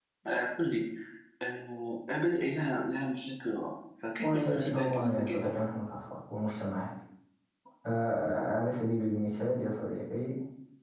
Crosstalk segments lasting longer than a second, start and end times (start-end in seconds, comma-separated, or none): 4.2-5.5